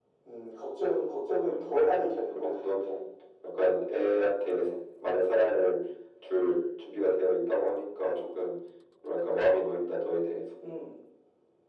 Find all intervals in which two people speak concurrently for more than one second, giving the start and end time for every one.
1.6-2.9

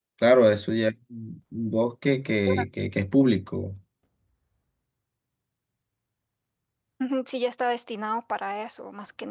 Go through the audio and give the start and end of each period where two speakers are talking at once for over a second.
none

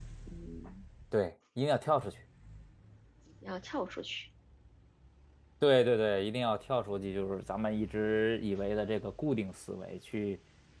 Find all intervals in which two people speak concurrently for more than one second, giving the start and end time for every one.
none

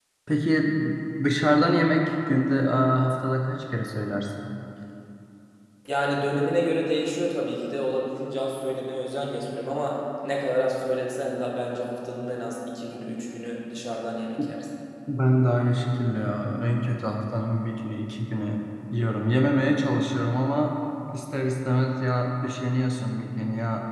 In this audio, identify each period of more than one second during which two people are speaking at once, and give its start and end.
none

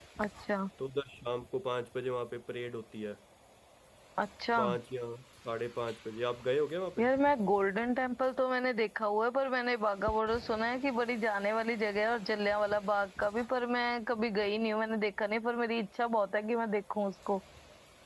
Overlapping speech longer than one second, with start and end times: none

